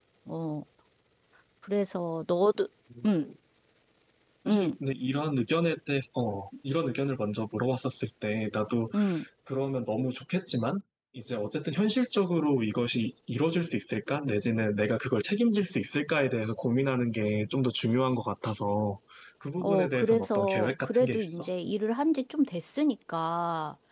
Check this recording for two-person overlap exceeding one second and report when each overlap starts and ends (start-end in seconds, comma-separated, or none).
19.6-21.5